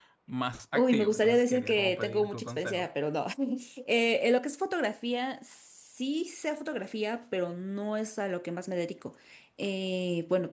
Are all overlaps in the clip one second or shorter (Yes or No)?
No